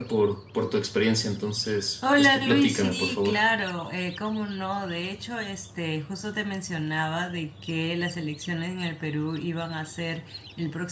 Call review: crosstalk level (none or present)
present